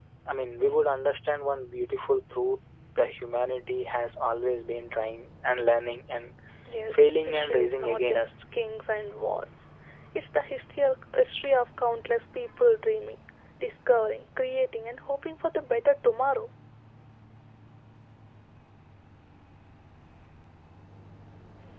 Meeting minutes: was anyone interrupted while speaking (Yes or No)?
Yes